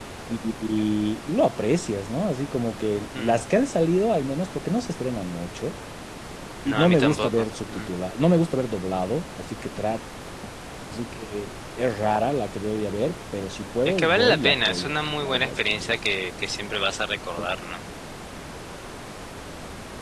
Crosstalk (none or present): present